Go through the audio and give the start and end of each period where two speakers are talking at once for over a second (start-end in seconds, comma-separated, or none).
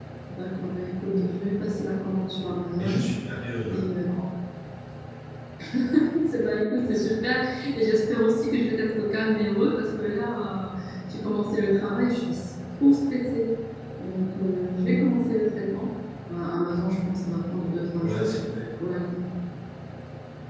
none